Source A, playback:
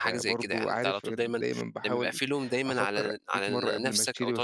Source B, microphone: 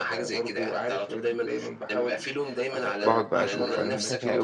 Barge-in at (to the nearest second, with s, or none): 3 s